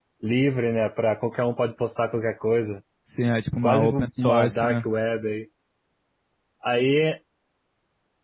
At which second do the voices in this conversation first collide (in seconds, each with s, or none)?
3.6 s